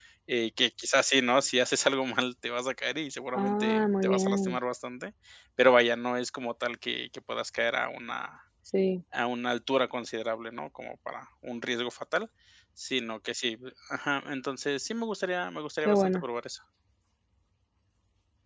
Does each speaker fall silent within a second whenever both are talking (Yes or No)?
No